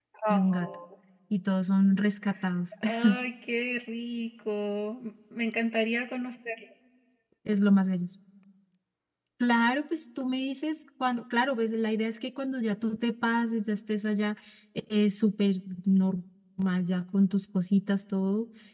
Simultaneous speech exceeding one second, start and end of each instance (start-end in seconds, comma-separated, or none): none